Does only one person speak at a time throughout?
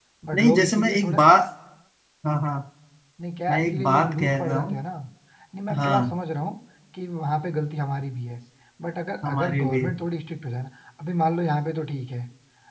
No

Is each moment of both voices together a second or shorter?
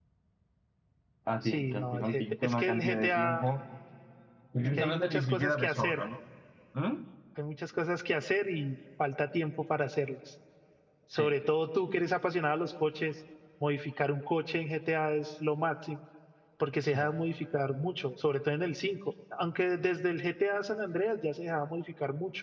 No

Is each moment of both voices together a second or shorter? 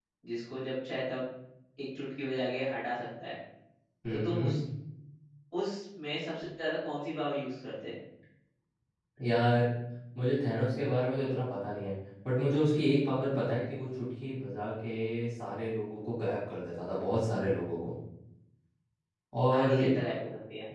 Yes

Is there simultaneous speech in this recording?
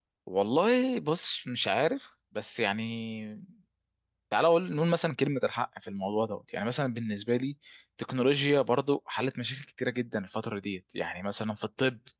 No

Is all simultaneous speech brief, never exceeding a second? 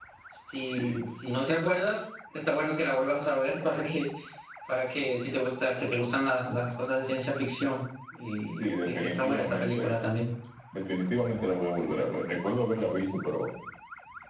No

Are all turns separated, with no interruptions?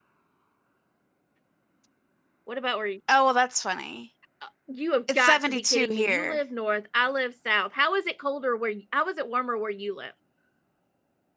No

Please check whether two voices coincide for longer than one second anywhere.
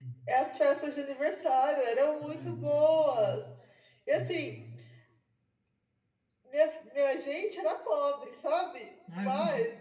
Yes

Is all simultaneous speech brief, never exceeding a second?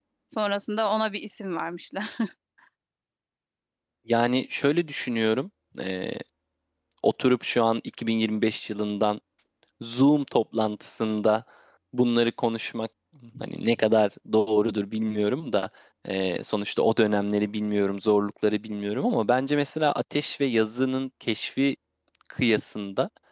Yes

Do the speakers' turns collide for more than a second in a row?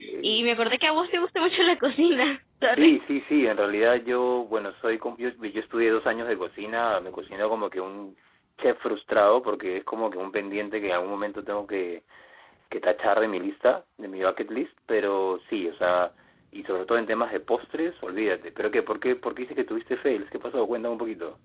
No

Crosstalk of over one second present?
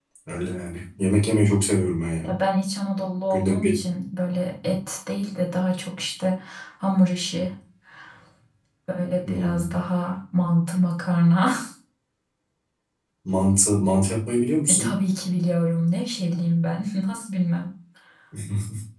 No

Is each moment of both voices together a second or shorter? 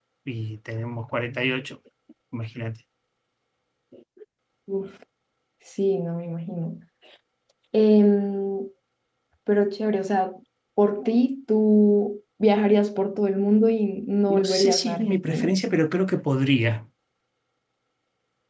No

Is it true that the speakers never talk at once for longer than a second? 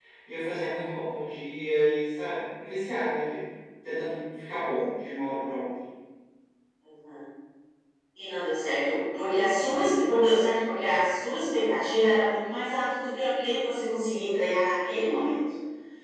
Yes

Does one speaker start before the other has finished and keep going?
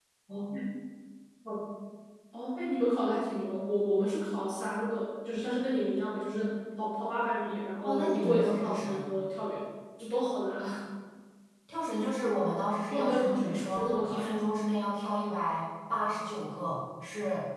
Yes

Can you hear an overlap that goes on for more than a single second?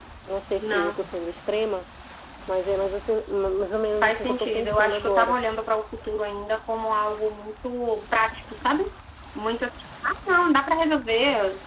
Yes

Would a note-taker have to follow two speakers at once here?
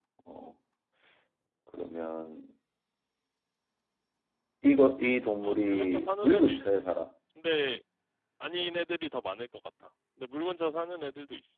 Yes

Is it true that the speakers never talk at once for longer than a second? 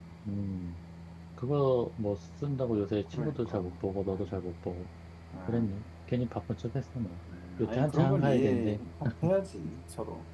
No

